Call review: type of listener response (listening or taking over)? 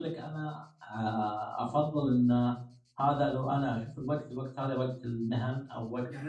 taking over